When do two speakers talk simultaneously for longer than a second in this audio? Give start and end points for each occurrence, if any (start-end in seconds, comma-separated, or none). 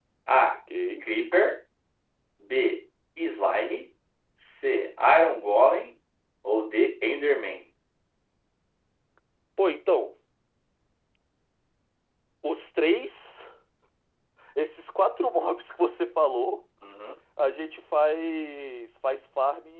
none